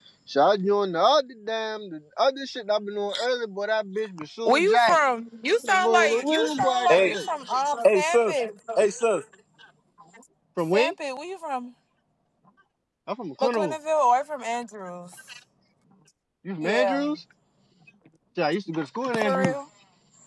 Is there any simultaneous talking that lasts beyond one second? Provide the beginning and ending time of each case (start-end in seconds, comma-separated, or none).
5.7-7.2